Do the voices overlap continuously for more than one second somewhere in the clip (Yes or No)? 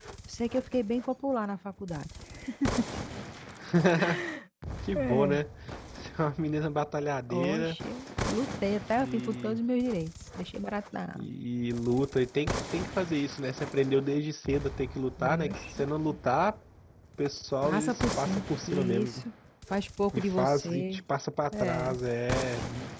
Yes